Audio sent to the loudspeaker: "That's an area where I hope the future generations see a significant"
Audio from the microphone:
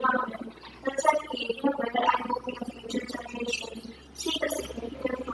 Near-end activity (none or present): none